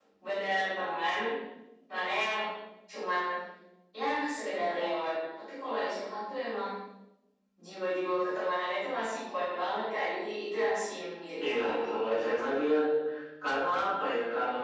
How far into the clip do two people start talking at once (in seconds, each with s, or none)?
11.4 s